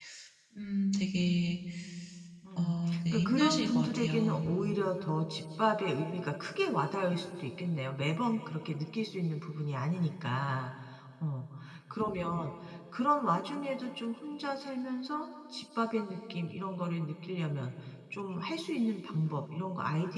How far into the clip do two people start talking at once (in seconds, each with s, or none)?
2.6 s